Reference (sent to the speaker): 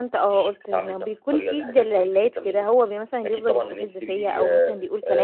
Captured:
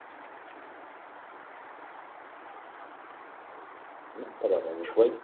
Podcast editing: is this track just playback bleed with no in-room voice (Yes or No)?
No